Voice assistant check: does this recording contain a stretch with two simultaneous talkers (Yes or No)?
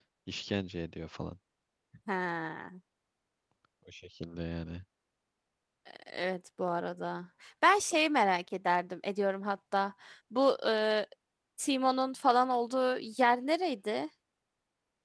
No